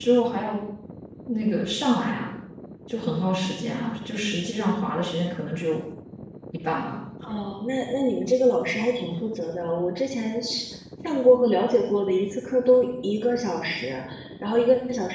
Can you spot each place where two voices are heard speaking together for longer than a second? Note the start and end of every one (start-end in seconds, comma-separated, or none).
none